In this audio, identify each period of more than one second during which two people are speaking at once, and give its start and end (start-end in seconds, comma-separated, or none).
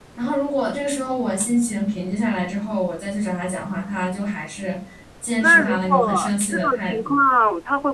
5.4-7.2